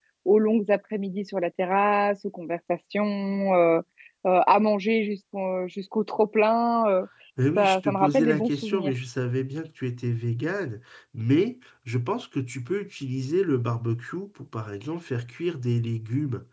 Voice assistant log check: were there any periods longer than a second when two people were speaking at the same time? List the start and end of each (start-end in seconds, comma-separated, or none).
7.6-8.9